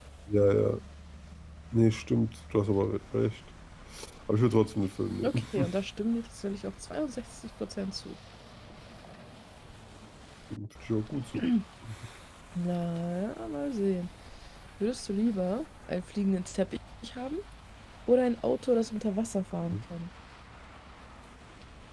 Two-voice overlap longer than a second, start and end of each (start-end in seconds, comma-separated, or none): none